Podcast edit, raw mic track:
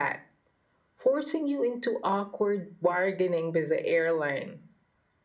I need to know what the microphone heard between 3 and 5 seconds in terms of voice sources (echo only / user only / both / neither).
echo only